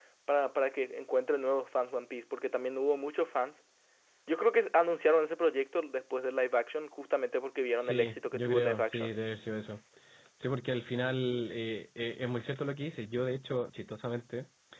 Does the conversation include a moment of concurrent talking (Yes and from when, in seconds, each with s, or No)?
Yes, from 7.8 s